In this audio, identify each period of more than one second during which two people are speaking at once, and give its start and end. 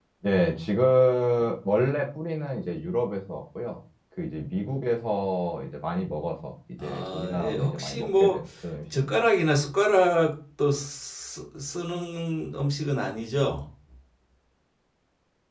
6.8-8.4

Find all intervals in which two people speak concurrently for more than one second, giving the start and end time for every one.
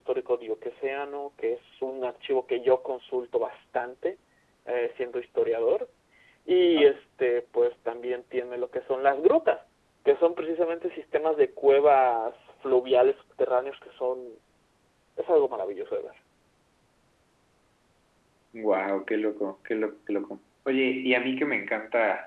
none

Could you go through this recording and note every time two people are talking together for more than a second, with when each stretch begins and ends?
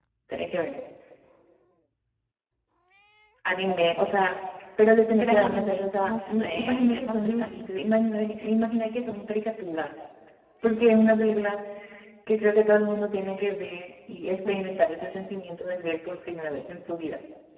5.2-7.7

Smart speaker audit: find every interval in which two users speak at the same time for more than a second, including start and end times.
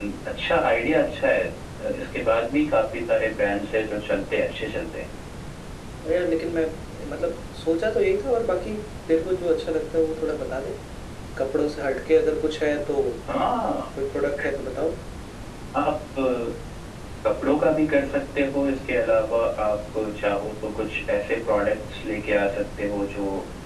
none

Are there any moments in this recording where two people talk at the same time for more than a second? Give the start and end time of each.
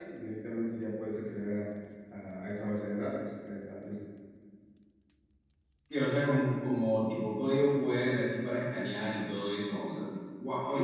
none

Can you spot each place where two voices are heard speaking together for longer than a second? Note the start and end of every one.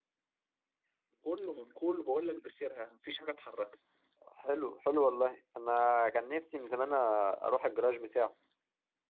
none

